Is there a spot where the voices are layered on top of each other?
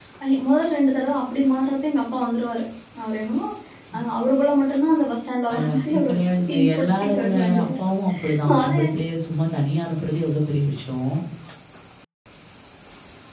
Yes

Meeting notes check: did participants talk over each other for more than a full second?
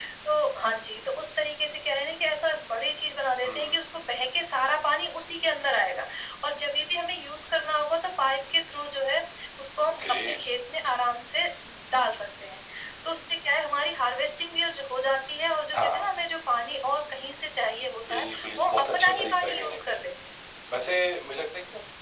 Yes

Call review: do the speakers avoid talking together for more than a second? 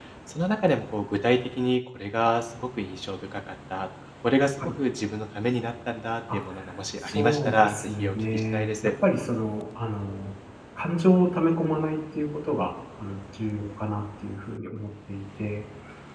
No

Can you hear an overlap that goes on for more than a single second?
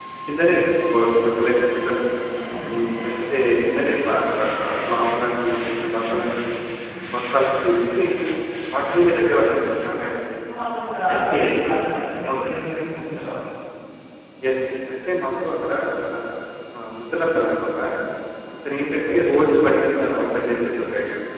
No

